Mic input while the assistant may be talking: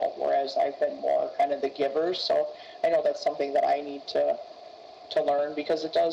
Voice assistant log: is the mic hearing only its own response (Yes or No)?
Yes